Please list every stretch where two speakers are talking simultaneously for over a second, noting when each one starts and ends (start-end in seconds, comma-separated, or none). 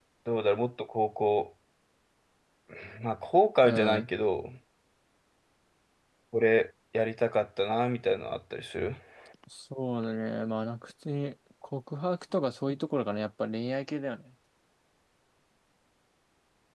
none